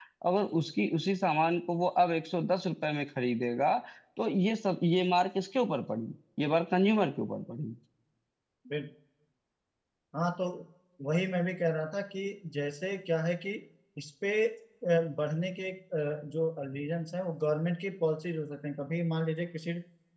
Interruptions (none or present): none